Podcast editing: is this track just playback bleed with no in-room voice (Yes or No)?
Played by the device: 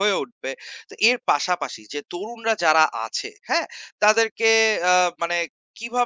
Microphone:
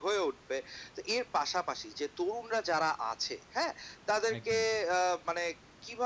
No